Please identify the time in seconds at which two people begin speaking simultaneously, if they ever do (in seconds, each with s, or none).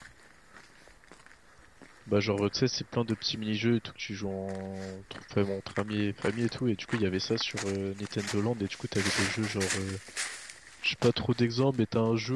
none